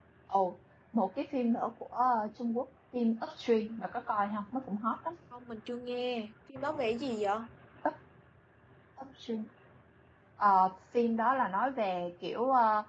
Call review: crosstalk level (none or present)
none